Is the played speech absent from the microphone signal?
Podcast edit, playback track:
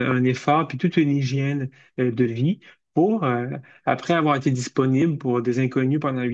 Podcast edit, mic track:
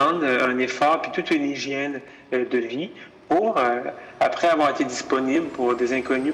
No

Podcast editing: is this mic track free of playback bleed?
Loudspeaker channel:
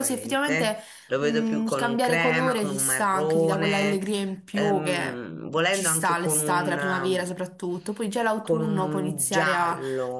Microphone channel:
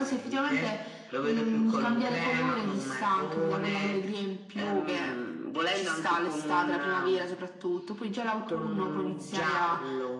No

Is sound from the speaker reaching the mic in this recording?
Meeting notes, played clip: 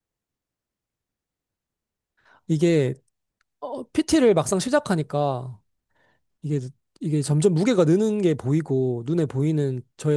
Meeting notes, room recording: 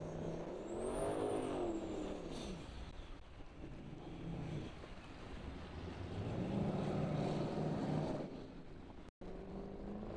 No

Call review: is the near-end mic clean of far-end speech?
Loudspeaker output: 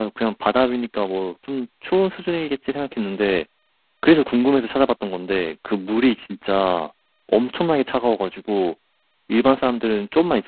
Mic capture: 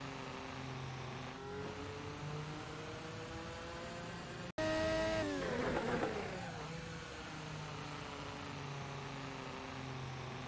Yes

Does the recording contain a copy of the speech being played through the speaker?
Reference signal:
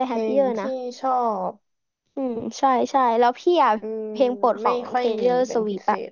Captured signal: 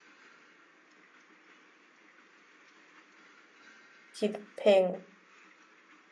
No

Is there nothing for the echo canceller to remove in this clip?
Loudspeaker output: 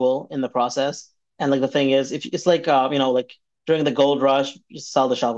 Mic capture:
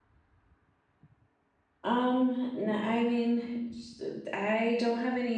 Yes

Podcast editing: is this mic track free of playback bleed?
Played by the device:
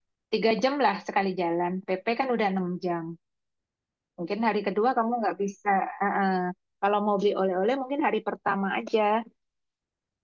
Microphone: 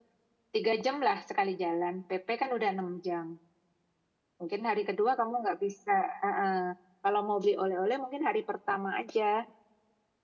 No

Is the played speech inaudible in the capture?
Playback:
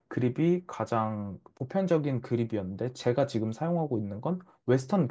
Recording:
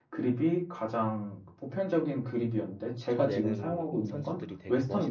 No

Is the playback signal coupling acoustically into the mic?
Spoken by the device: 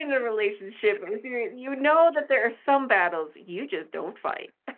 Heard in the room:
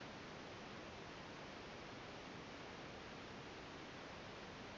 No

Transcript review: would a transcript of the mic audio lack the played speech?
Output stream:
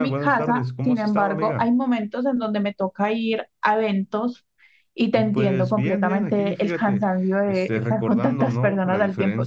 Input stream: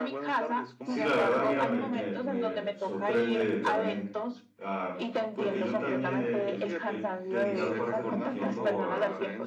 No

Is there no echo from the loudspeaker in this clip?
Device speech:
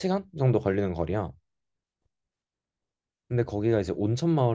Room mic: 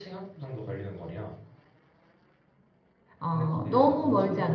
No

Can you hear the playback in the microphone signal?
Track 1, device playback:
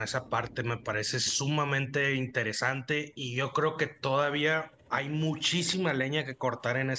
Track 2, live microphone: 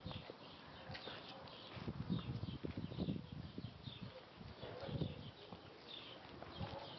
No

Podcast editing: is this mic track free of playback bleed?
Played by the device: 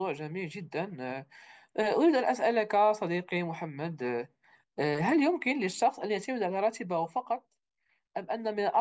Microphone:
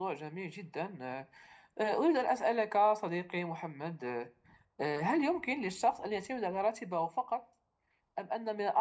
No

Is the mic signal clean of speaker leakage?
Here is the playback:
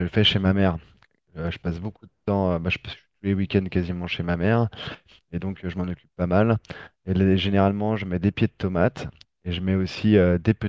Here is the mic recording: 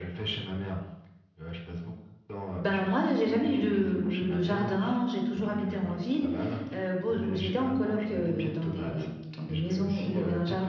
No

